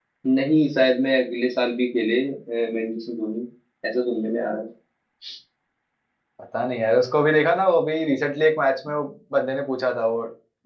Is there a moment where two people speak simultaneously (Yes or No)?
No